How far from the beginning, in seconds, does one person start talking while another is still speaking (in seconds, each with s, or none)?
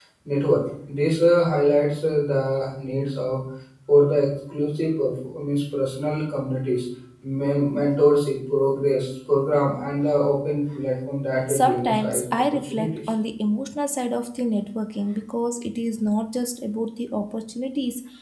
11.5 s